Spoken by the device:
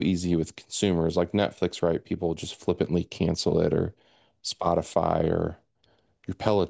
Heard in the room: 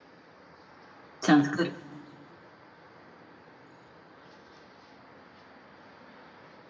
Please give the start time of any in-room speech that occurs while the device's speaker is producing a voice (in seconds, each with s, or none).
1.2 s